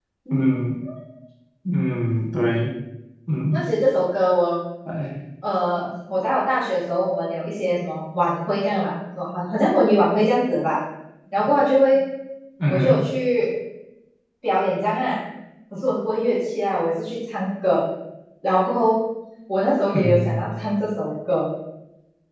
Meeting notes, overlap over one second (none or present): none